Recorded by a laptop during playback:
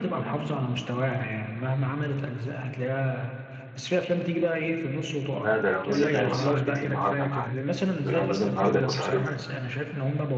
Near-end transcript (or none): لا ده لو نزل ده يبقى سهرتي النهاردة يا معلم ده لو نزل النهاردة يبقى سهرتي